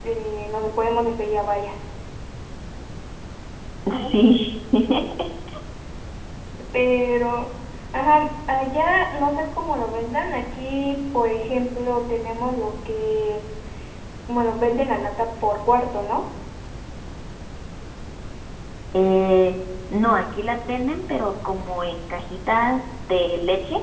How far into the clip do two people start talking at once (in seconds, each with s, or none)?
none